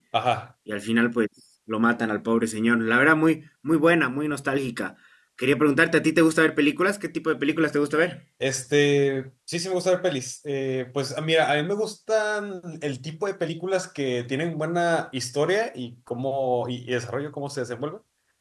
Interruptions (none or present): none